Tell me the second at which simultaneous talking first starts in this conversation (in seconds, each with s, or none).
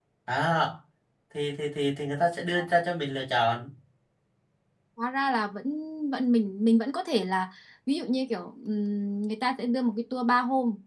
none